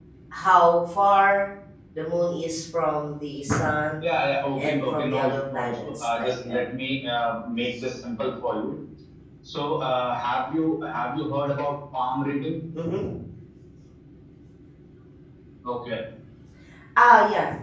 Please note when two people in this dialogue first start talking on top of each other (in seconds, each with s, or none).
4.6 s